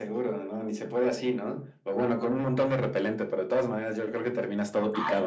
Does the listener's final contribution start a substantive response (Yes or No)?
Yes